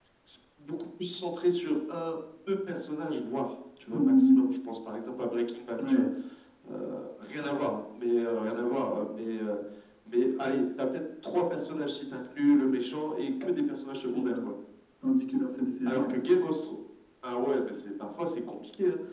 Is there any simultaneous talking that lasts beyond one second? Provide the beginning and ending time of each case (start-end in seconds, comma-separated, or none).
none